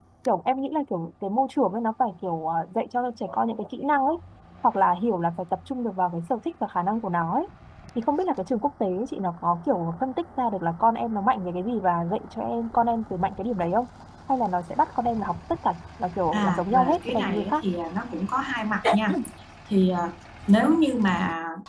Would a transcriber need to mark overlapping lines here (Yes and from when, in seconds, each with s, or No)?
Yes, from 16.3 s